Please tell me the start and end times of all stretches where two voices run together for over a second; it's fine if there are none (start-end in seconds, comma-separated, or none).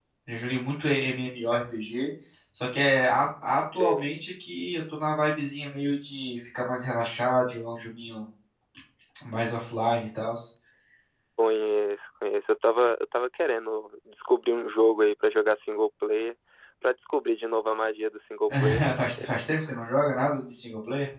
none